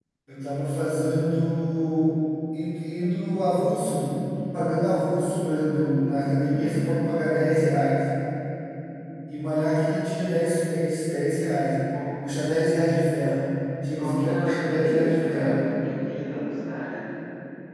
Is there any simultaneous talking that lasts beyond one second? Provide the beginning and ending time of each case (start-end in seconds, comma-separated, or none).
14.0-15.7